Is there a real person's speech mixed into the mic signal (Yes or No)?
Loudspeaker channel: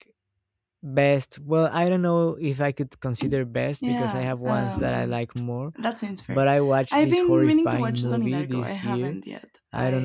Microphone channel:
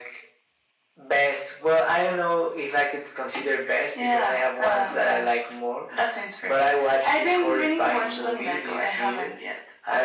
No